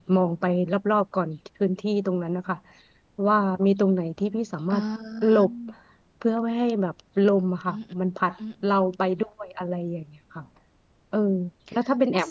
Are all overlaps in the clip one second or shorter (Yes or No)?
Yes